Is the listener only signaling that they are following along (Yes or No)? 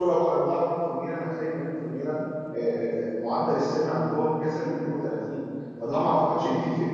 Yes